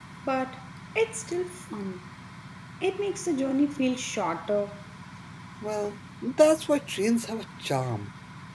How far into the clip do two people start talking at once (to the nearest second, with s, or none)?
none